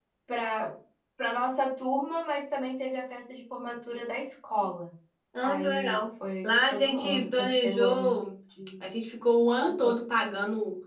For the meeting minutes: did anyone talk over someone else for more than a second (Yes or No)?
Yes